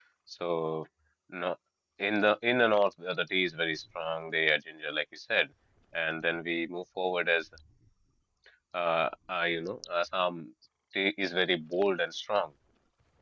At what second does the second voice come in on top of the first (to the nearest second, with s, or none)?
none